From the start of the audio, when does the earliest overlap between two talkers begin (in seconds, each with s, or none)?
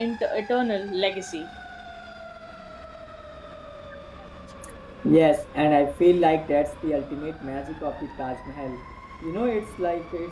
none